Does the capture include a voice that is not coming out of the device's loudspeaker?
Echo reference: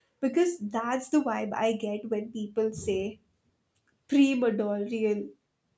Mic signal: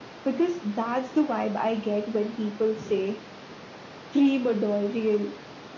No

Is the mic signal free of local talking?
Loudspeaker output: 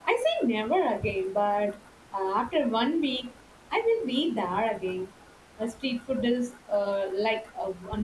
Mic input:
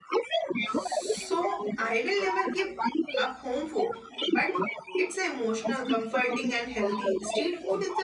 No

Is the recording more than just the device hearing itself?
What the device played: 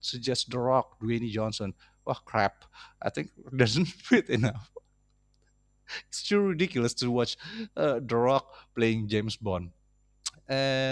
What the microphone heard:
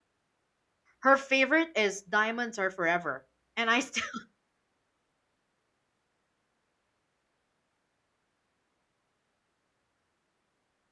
Yes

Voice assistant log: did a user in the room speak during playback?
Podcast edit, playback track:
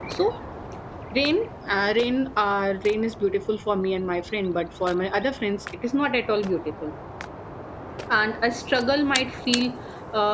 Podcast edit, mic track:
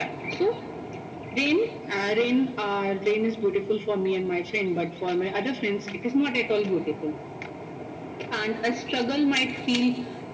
No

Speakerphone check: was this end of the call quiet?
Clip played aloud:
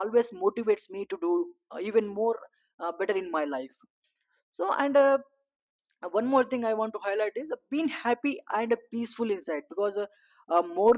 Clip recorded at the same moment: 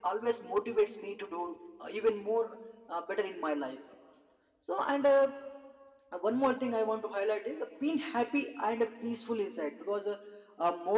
Yes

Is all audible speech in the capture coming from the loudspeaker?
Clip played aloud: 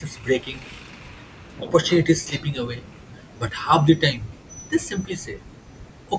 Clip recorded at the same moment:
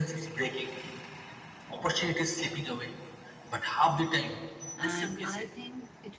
No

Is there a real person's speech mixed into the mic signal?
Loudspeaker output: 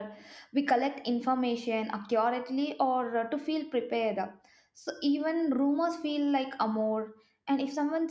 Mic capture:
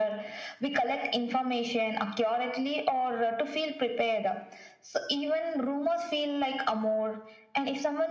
No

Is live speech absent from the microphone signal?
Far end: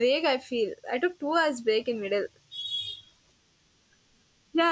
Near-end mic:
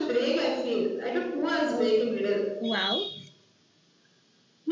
No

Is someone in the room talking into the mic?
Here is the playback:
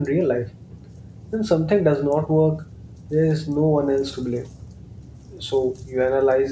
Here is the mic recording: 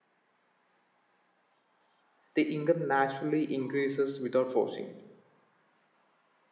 Yes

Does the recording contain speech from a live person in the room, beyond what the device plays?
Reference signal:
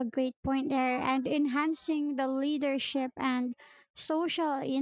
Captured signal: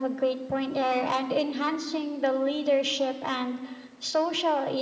No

